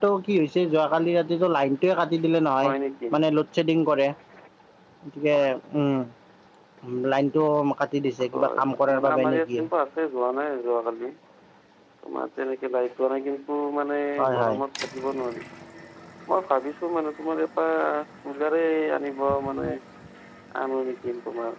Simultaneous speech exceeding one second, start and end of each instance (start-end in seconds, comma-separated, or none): 8.3-9.6